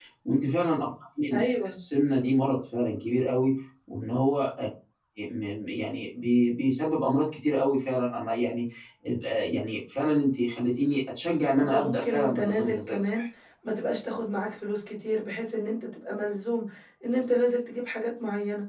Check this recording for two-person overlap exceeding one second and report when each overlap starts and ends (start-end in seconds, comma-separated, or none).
11.7-13.2